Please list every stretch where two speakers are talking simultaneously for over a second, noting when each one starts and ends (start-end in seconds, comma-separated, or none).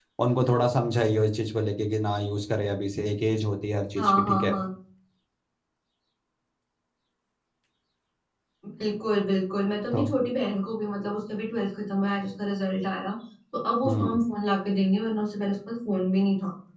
none